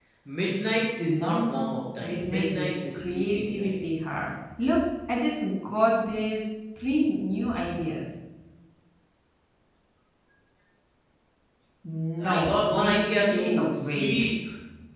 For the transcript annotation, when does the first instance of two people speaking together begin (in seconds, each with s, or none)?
1.0 s